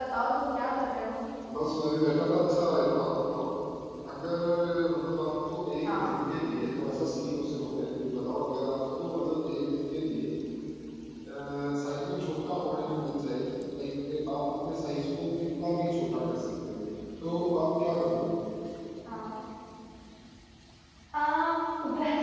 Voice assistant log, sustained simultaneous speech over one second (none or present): none